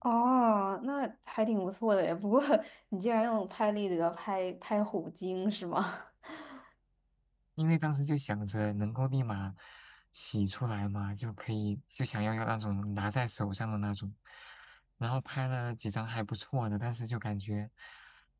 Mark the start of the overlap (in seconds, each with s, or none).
none